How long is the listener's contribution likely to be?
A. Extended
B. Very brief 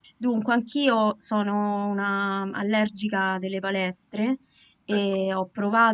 B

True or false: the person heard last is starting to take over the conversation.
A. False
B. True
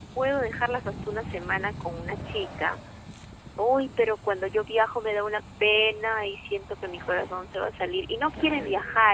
A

